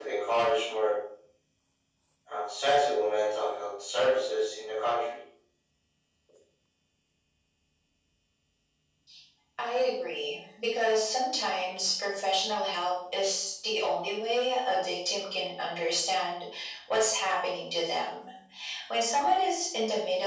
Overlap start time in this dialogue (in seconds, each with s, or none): none